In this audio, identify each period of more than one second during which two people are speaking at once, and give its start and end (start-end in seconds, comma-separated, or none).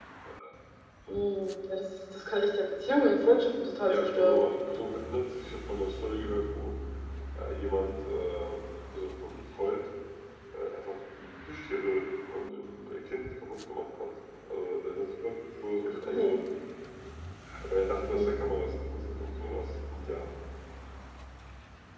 none